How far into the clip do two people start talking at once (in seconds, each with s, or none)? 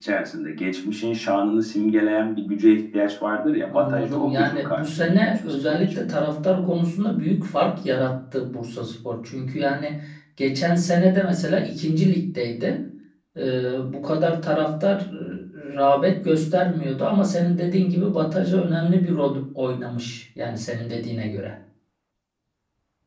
3.7 s